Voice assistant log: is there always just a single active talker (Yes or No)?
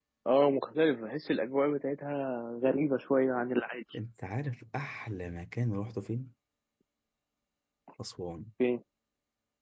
Yes